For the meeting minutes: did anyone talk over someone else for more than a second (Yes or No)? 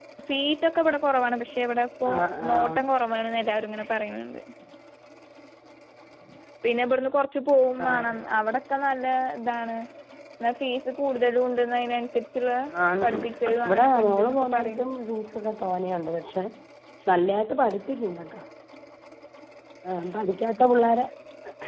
Yes